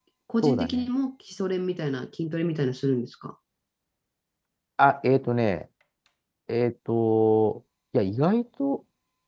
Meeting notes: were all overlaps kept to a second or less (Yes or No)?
Yes